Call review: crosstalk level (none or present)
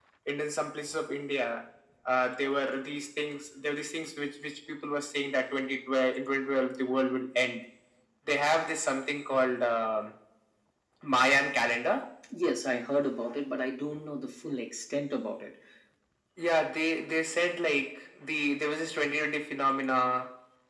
none